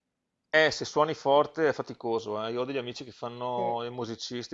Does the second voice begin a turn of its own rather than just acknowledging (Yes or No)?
No